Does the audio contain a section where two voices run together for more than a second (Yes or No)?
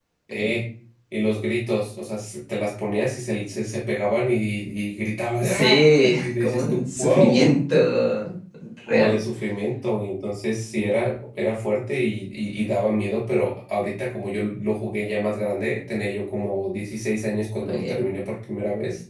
Yes